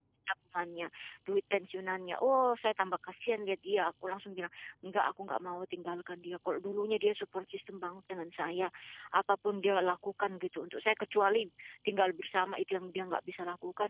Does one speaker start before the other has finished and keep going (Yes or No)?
No